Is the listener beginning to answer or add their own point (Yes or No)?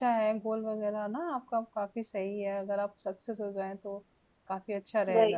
Yes